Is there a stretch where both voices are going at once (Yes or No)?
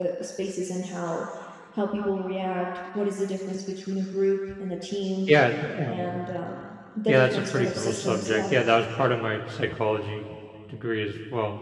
Yes